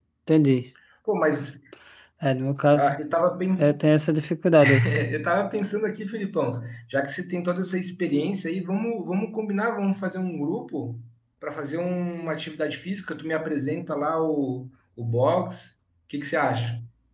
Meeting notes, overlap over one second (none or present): none